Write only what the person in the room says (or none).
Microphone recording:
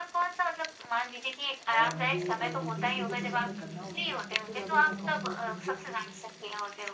और मुझे अ, 2-3 चीज़ें पसंद है करना, उसमें से सबसे ज़्यादा मैं कहूँगा कि मुझे